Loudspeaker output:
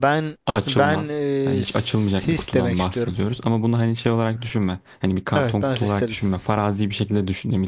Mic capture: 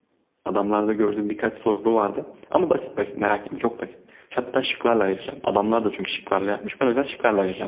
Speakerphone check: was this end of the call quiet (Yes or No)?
No